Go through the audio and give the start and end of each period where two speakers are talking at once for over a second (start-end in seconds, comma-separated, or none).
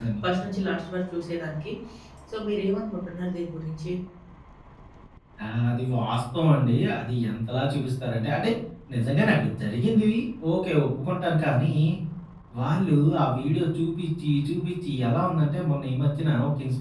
none